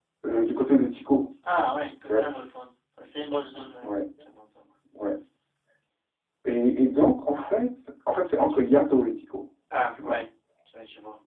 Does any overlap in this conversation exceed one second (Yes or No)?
No